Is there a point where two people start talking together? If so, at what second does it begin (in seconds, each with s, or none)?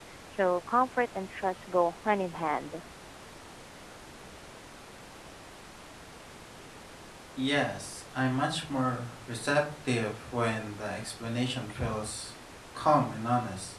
none